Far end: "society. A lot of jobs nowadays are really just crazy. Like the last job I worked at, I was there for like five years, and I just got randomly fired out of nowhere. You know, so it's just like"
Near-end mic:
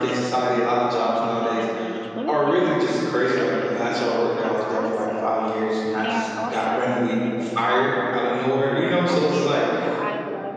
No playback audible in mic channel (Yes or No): No